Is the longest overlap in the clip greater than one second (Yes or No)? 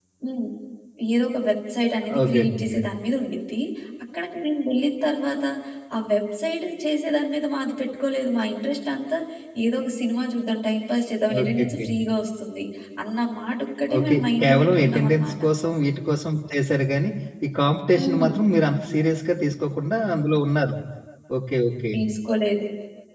Yes